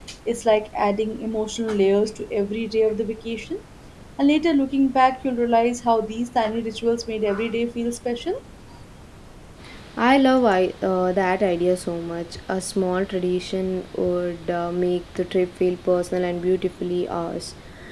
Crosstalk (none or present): none